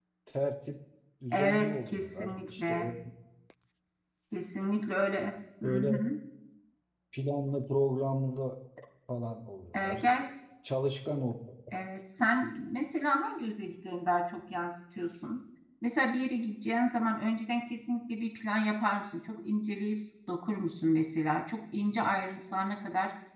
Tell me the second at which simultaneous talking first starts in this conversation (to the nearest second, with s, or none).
1 s